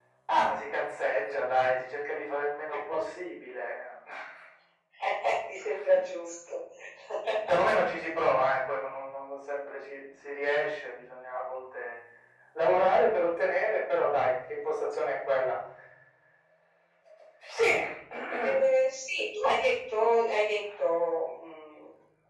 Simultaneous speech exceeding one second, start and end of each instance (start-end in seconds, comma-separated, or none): none